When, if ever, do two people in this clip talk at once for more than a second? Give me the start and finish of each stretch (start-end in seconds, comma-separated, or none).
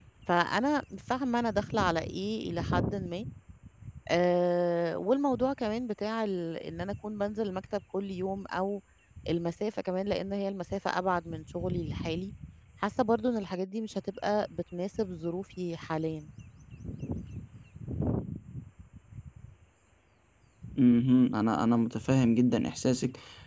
none